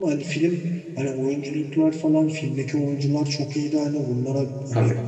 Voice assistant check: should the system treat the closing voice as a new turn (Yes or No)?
No